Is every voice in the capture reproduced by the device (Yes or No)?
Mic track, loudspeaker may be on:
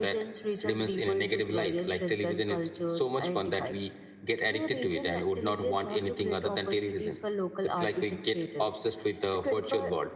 Yes